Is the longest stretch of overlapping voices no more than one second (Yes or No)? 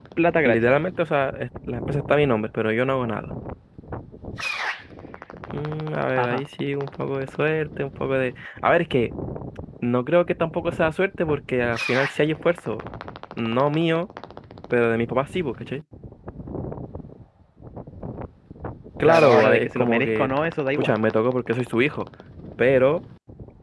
No